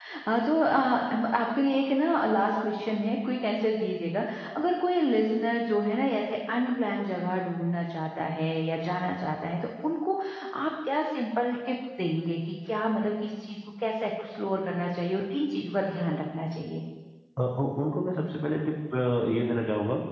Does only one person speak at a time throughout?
Yes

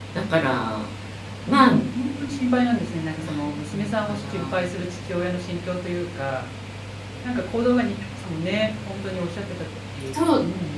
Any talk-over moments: Yes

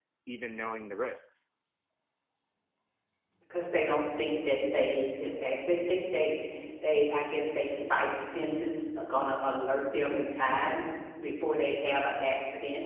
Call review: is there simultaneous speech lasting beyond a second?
No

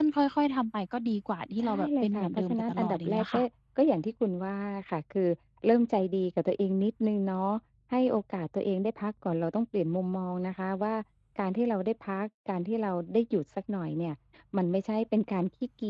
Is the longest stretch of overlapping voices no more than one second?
No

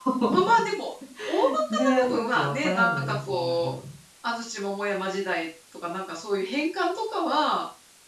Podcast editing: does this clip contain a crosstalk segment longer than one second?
Yes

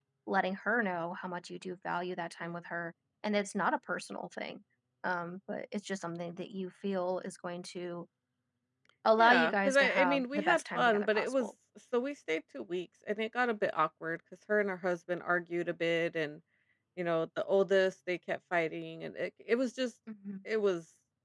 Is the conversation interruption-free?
No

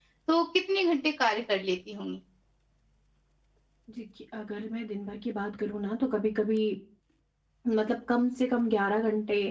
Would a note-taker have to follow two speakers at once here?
No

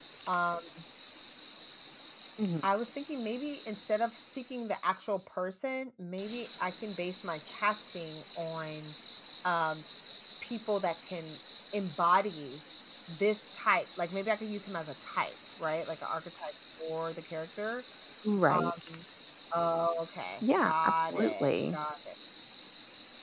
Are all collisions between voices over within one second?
No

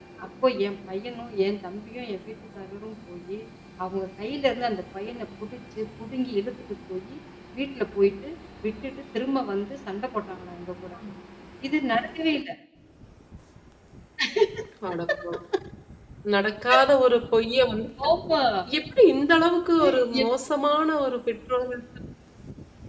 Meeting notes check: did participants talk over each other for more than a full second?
No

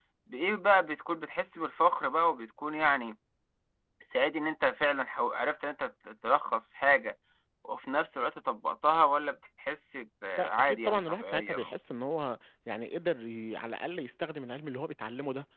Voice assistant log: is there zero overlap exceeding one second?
No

